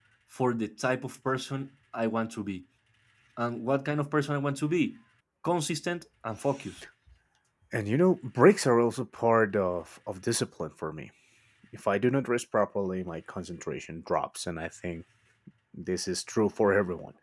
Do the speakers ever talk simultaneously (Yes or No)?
No